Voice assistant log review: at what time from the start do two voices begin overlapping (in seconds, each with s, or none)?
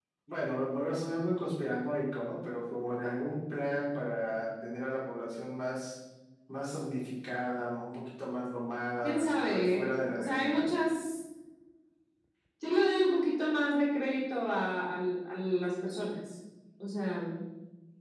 9.0 s